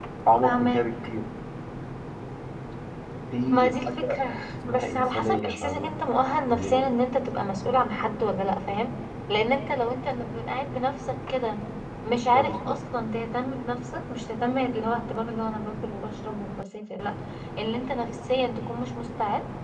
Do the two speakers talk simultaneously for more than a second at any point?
Yes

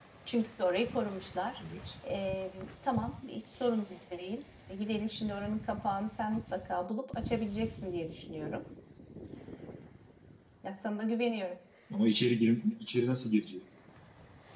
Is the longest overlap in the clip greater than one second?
No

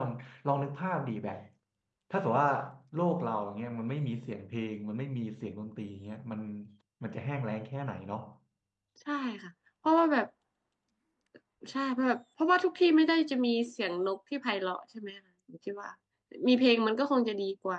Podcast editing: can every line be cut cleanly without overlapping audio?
Yes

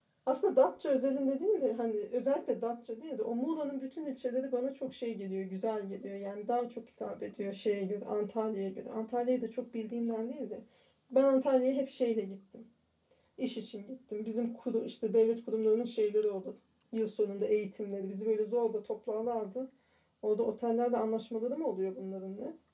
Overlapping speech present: No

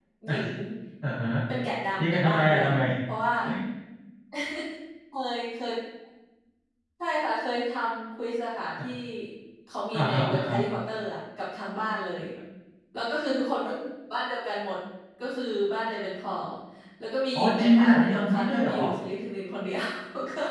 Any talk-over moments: Yes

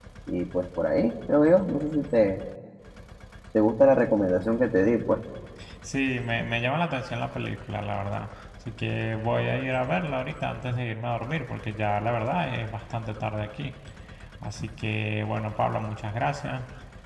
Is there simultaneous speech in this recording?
No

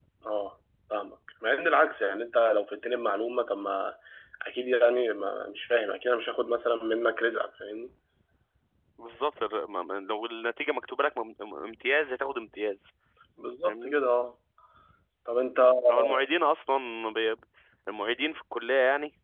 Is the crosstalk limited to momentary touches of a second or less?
Yes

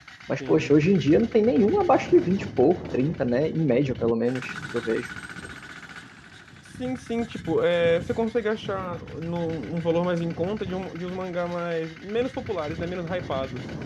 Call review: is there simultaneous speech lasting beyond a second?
No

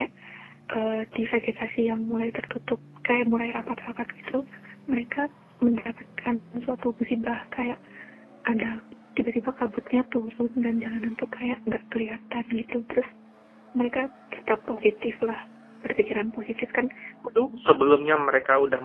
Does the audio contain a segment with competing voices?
No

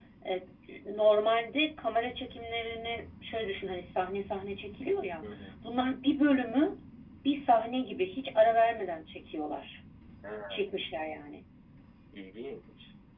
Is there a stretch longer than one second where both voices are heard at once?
No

